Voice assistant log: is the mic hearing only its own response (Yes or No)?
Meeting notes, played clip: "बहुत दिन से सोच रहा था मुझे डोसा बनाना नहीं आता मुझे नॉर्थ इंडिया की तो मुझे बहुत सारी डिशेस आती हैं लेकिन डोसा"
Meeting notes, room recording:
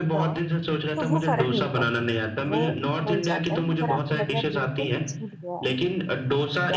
No